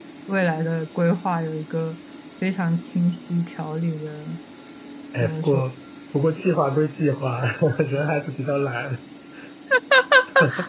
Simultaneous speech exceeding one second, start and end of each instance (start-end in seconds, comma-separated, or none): none